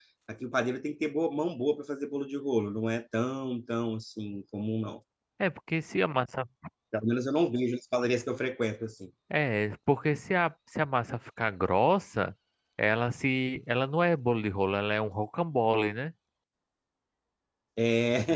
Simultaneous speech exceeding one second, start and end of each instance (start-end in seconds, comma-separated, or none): none